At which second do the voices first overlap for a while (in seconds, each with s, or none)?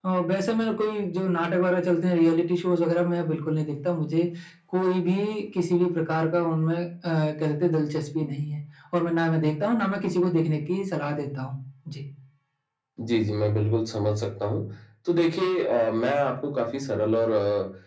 none